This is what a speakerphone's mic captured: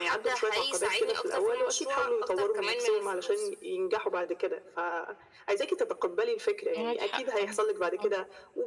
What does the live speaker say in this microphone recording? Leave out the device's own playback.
معاك حق طبعًا، آه،

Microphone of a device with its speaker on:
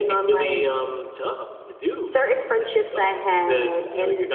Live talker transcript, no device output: none

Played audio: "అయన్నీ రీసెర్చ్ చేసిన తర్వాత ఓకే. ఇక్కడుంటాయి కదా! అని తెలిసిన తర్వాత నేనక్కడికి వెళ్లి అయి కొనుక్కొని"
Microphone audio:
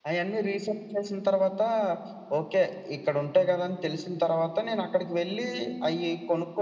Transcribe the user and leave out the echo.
none

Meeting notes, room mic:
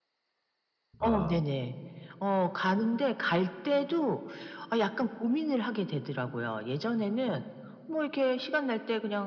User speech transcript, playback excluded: 아

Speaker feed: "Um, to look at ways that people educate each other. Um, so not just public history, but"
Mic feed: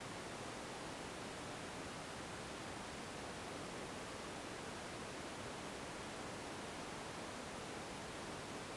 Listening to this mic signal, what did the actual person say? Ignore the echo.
none

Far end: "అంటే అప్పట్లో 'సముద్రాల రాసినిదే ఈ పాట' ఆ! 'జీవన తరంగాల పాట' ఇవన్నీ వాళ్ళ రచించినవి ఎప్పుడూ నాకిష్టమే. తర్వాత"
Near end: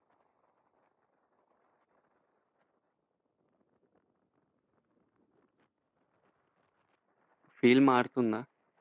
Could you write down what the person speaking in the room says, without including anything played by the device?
ఫీల్ మారుతుందా?

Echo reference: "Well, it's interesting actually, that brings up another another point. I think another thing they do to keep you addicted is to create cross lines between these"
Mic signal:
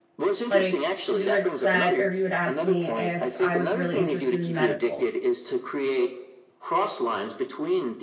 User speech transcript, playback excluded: Like you had said, or you had asked me if I was really interested in medical.

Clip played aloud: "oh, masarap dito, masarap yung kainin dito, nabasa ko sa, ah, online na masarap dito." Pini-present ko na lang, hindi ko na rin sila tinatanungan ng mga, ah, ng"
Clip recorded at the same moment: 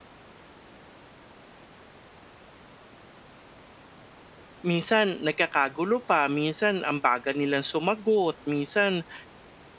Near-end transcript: Minsan nagkakagulo pa, minsan ang bagal nilang sumagot, minsan

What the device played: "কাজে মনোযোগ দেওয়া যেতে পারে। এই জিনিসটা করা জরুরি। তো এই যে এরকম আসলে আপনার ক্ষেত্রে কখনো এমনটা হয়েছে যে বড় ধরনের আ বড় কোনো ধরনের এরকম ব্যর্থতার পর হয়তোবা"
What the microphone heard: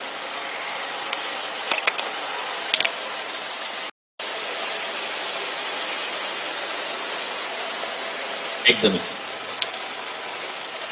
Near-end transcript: একদমই ঠিক,

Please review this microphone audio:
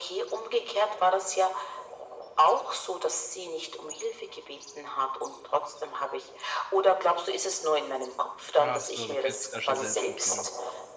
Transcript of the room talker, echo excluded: Ach so, du kennst dich da schon selbst gut genug.

